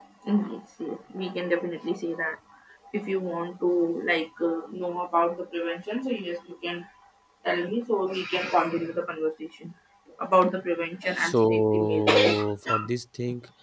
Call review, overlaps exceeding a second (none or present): present